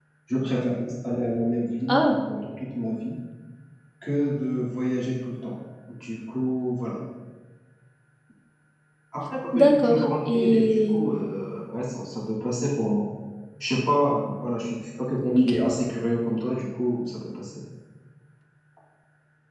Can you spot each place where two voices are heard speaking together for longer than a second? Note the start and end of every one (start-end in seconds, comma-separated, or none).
9.5-11.0